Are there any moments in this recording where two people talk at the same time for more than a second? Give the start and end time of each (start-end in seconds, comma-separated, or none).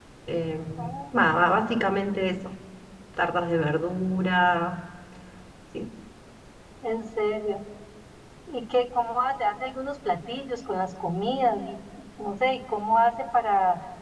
none